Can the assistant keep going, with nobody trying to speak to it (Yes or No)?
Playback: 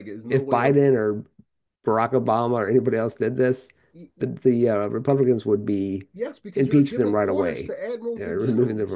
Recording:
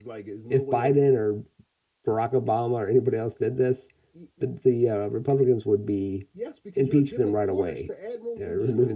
Yes